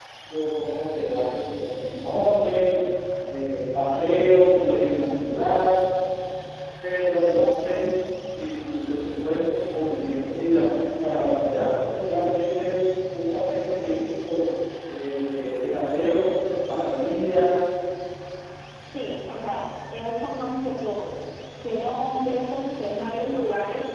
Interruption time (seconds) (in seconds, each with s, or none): none